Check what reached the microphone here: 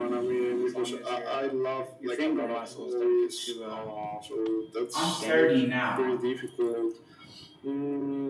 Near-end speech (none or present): present